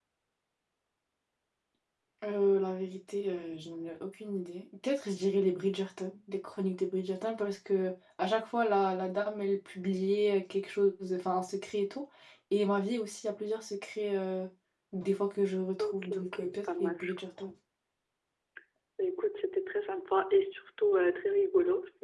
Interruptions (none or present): present